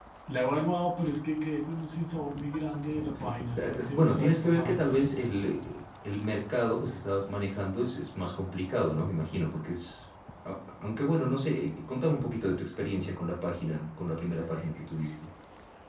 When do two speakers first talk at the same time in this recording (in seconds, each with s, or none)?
3.6 s